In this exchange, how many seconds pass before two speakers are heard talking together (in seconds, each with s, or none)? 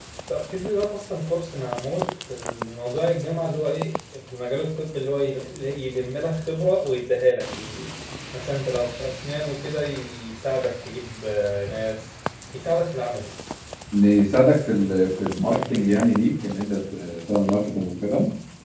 none